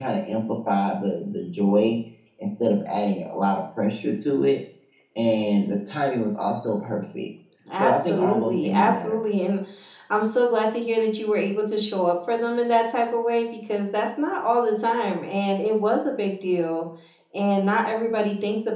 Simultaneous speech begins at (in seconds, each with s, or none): 7.8 s